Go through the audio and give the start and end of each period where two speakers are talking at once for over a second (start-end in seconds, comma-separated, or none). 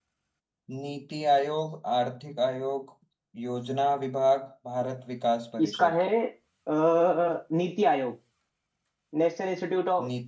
none